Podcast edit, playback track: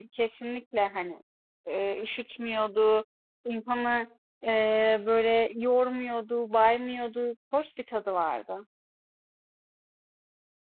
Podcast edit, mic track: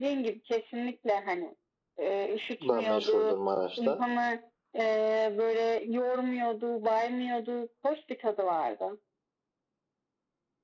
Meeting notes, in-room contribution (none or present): present